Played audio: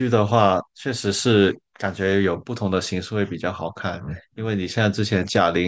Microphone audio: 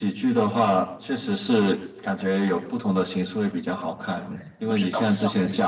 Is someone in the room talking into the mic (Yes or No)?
Yes